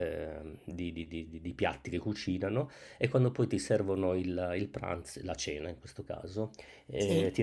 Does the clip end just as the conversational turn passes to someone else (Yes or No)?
No